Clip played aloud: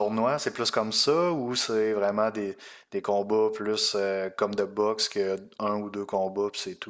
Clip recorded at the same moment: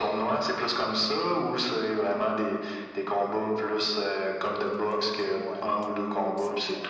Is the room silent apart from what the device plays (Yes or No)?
No